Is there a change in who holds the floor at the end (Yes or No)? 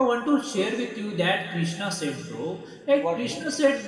No